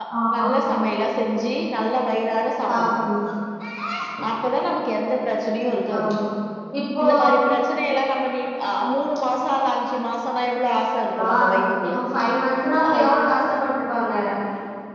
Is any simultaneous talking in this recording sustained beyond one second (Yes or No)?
No